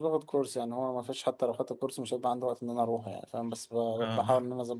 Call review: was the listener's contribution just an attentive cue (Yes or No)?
Yes